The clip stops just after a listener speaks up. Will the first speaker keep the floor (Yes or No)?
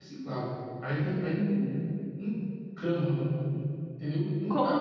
No